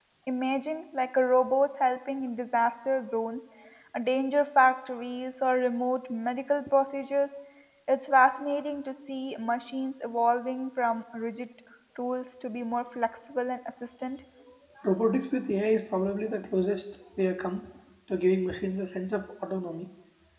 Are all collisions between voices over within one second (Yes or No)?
Yes